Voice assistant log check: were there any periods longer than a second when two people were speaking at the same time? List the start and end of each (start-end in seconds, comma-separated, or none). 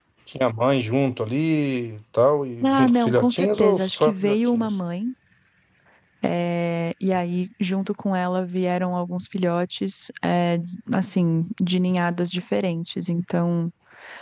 2.6-4.7